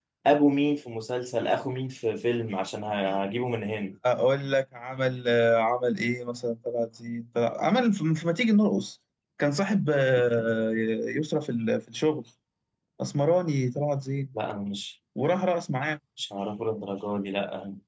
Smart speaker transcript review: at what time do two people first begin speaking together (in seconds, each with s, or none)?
none